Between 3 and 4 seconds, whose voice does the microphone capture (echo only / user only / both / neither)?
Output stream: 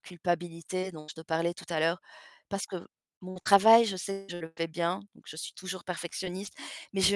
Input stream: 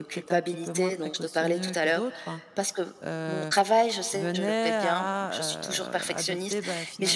both